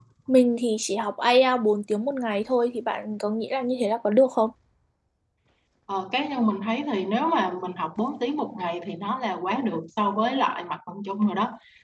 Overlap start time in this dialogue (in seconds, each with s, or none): none